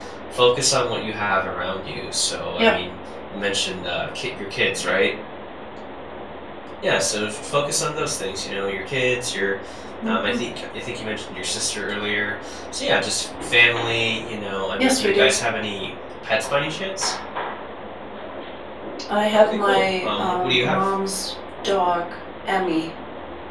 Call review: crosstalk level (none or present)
present